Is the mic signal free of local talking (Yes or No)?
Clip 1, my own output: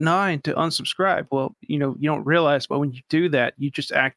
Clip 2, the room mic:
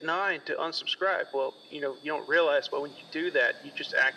Yes